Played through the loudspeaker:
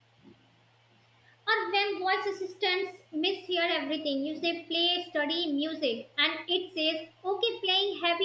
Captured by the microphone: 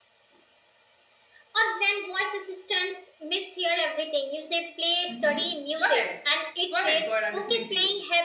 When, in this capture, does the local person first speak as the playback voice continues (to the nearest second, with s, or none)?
5 s